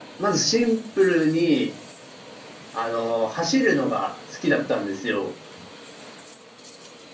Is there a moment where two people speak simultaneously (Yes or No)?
No